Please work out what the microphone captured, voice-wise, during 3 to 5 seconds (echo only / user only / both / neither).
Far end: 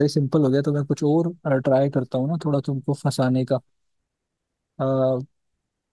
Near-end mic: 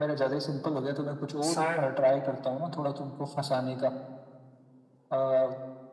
echo only